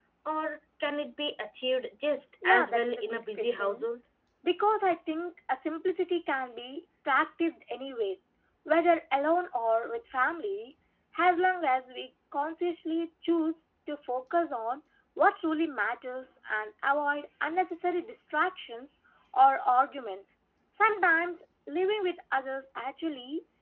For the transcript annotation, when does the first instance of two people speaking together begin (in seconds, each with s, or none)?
2.4 s